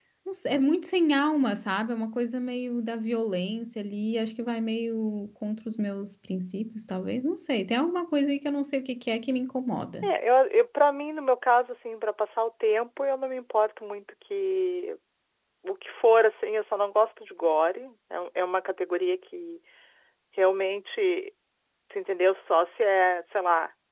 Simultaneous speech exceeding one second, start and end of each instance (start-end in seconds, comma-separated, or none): none